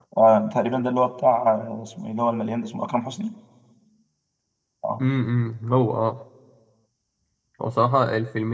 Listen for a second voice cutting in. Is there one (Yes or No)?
No